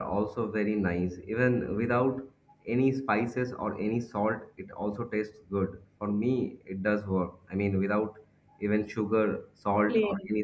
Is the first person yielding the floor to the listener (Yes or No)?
No